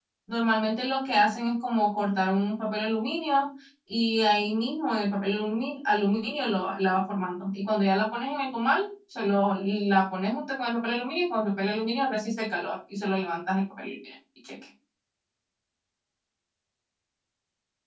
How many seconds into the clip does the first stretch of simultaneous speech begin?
none

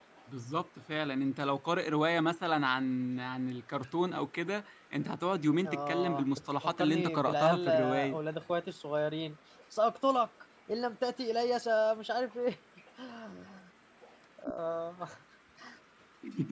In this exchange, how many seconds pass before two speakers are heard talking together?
5.7 s

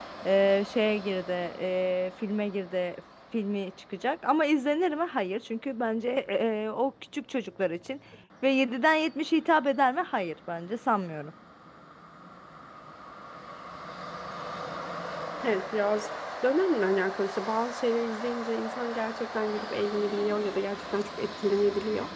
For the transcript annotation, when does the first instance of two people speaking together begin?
none

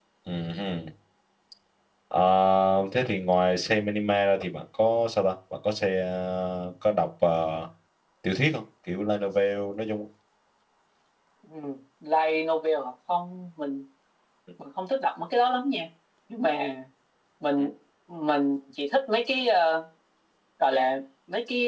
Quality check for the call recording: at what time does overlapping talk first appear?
none

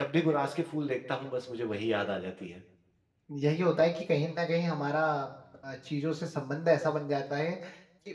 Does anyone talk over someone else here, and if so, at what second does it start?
none

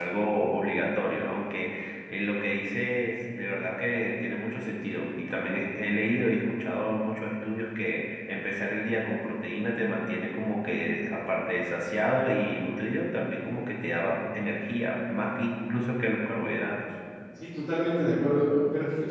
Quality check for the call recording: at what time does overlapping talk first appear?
none

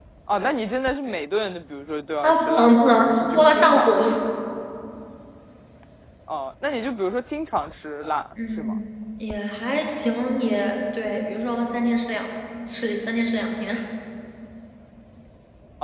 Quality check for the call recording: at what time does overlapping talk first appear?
2.2 s

